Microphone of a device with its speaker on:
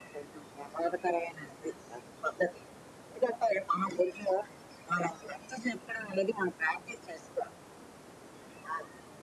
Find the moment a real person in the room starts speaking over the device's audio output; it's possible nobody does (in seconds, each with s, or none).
none